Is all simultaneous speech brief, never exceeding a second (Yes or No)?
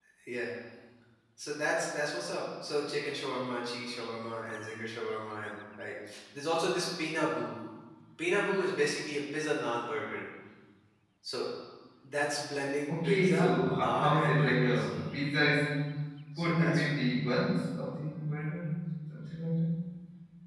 No